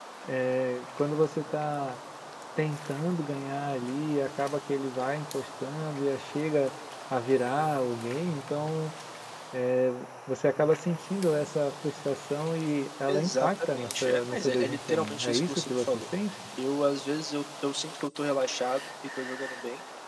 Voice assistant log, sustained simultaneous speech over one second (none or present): present